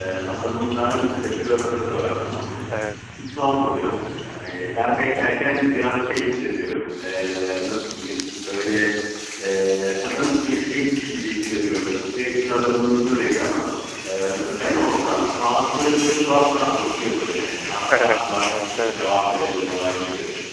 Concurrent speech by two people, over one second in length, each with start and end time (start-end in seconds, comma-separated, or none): 17.9-19.2